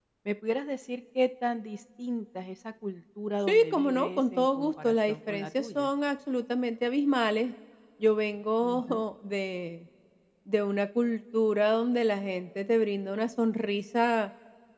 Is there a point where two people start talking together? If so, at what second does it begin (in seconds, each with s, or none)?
3.5 s